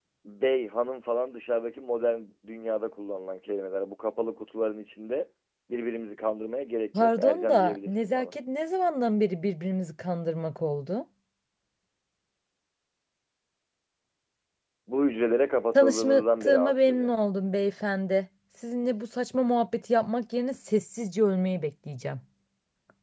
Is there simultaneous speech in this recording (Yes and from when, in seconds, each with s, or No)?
Yes, from 7.0 s